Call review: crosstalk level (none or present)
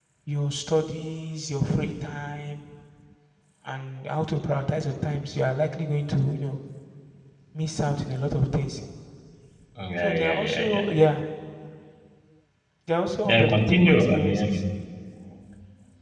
present